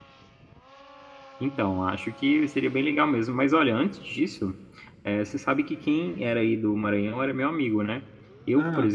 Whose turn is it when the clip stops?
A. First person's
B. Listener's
A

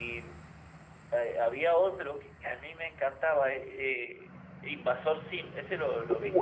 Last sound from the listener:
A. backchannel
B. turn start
B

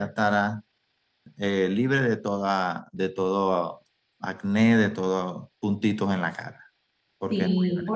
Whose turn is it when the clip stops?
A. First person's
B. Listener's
B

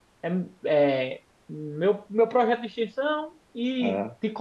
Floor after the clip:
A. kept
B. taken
A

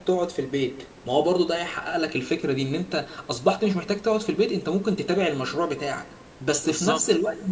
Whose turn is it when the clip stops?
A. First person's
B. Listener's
A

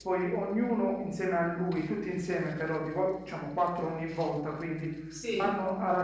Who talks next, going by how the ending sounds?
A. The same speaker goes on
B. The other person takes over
A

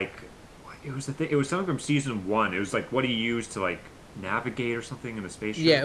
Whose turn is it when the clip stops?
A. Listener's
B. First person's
A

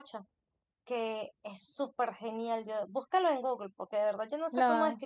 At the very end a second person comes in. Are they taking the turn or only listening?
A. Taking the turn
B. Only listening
B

